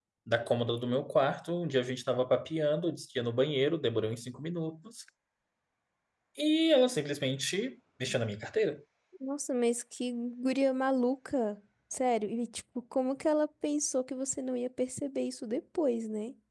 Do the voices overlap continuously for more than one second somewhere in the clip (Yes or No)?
No